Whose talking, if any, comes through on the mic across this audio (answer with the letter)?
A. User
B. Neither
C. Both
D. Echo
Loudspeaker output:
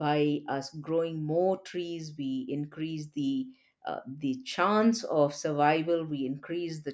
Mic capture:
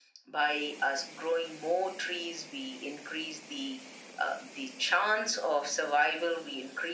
D